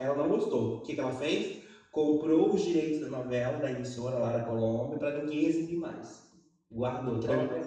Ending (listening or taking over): listening